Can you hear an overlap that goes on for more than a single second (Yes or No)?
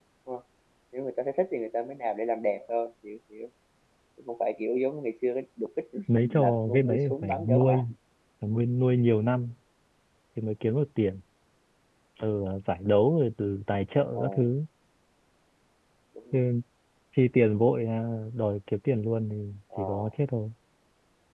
Yes